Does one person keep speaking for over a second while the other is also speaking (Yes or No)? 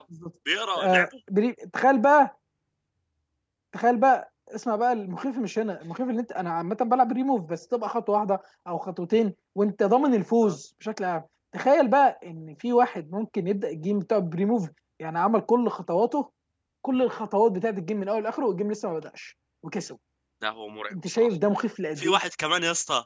No